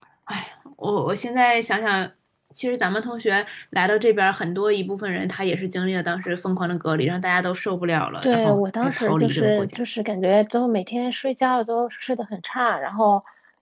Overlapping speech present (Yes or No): Yes